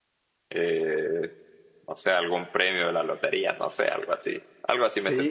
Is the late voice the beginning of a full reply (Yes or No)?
Yes